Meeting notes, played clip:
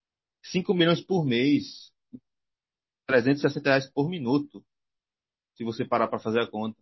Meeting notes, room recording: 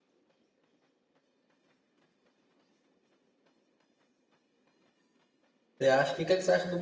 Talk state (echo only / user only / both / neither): user only